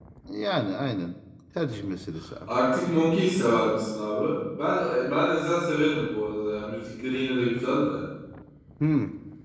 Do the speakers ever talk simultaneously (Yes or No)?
No